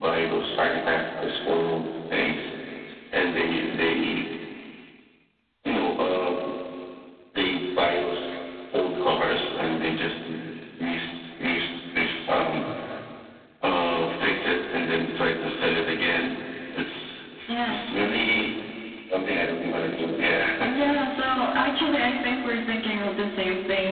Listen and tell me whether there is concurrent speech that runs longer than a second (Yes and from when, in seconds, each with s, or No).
No